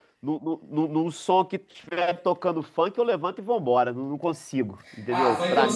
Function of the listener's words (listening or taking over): taking over